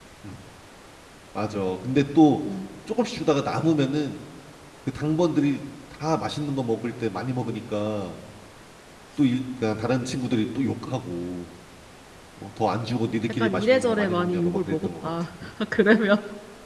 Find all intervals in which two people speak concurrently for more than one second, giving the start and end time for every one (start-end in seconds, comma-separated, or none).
13.3-15.1